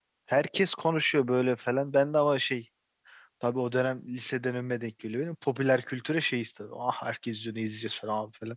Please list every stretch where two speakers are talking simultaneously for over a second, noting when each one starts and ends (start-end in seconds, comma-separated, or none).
none